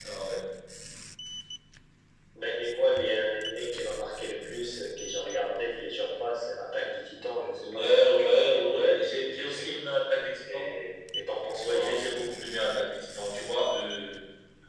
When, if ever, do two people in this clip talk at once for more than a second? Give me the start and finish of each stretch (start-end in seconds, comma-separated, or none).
7.6-8.8